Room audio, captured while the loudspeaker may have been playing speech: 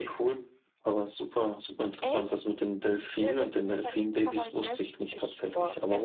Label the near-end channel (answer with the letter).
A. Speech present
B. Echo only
A